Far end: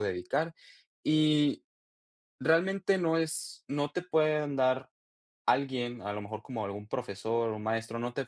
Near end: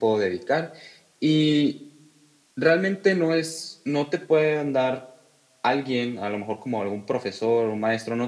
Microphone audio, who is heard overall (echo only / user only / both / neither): echo only